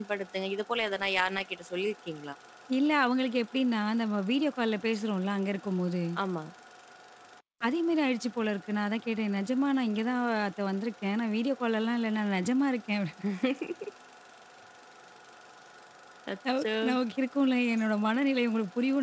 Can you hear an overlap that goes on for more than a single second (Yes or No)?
No